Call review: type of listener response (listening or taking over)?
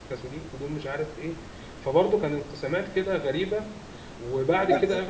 listening